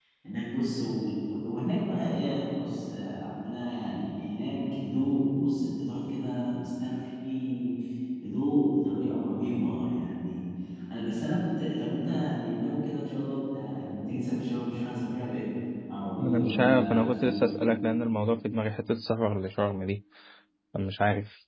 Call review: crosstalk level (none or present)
present